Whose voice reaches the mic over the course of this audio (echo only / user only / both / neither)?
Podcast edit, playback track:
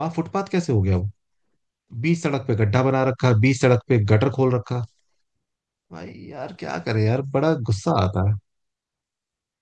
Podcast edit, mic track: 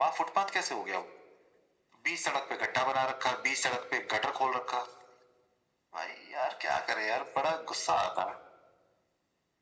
echo only